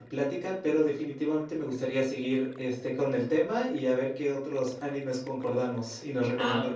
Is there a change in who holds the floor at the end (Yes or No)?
Yes